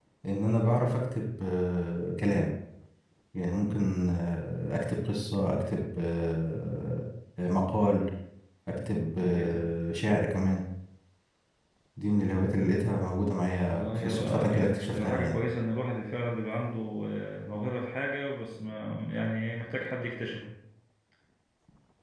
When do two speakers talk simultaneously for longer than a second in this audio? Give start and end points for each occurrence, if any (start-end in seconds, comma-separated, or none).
13.7-15.4